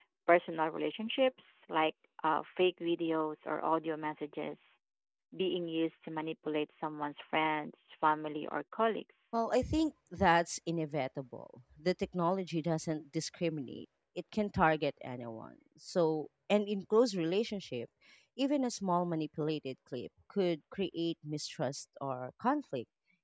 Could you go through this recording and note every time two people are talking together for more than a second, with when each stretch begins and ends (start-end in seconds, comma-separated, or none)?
none